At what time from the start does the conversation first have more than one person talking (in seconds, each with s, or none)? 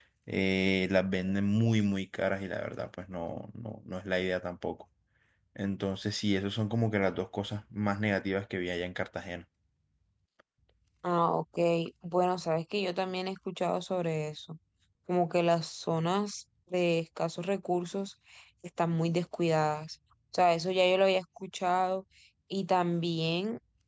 none